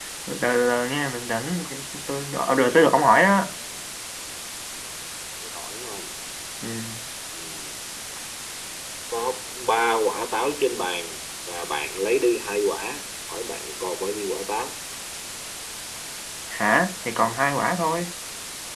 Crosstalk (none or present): none